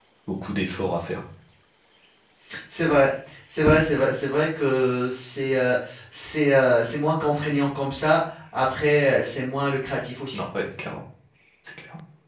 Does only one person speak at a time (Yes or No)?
Yes